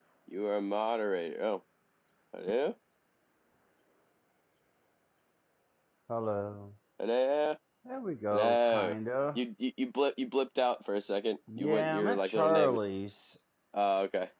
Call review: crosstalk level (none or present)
present